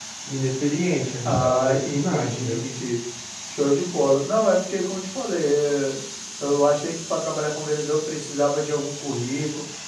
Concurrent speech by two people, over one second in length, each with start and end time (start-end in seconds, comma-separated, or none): 1.2-2.6